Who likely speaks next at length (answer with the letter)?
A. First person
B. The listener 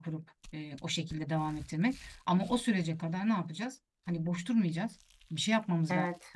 A